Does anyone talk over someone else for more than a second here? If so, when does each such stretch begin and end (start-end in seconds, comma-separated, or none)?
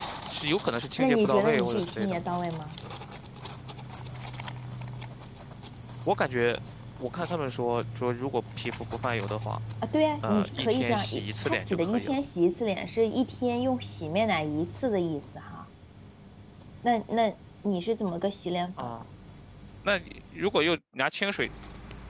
1.0-2.4, 10.3-12.2